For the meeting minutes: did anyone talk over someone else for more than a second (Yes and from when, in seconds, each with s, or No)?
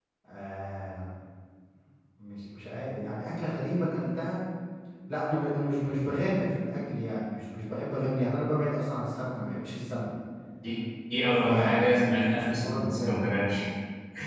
Yes, from 11.4 s